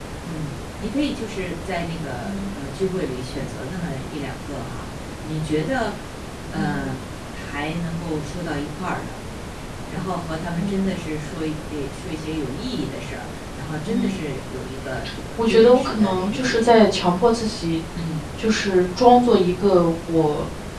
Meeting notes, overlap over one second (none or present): present